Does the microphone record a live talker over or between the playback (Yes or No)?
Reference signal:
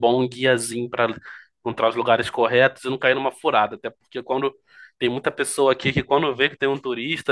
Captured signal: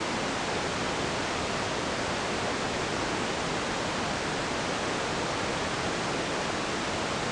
No